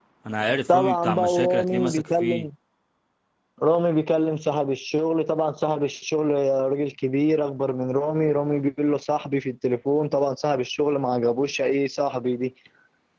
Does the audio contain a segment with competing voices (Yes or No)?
Yes